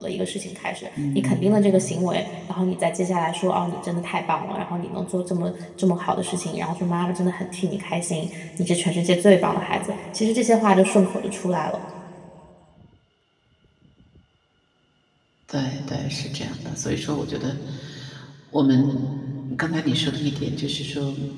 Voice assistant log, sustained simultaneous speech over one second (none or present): none